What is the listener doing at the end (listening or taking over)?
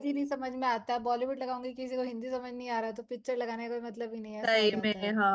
taking over